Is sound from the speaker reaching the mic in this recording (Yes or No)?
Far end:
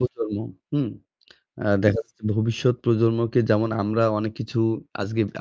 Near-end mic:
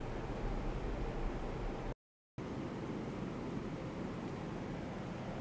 No